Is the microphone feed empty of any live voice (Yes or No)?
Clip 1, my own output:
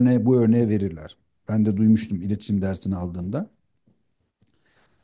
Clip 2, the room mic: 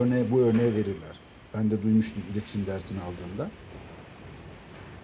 Yes